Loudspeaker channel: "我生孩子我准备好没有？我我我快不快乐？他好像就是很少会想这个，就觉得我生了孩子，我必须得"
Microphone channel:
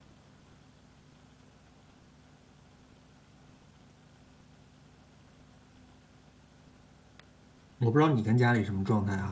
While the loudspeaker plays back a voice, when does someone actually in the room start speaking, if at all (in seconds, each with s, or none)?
7.8 s